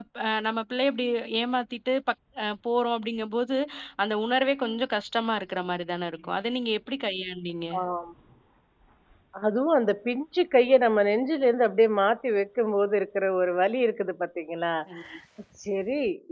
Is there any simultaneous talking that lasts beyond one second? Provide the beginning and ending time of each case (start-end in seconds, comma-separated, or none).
none